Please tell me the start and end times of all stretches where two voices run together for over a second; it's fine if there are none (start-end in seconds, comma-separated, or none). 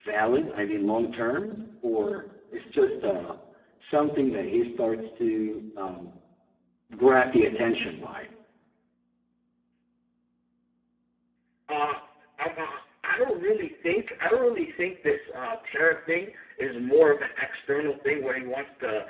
none